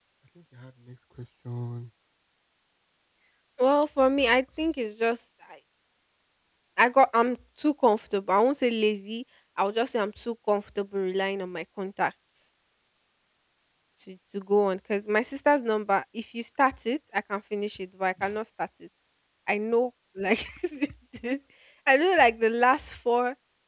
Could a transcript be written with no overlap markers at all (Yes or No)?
Yes